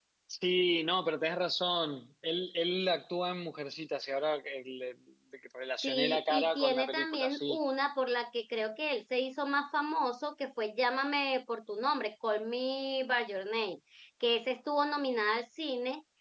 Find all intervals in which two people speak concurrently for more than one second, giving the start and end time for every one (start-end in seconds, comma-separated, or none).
5.8-7.6